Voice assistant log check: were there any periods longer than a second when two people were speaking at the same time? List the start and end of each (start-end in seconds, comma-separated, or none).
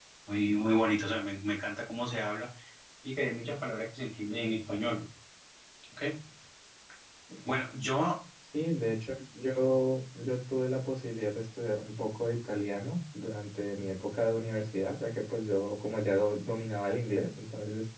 none